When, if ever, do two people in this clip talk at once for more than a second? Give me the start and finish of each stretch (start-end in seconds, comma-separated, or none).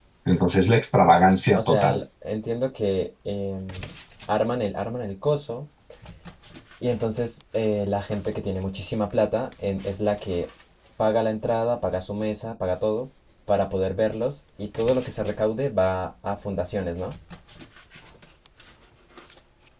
none